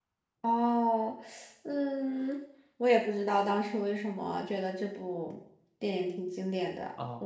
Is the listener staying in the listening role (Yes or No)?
No